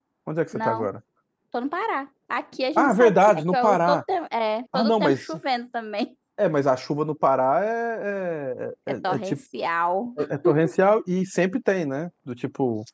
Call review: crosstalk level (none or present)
present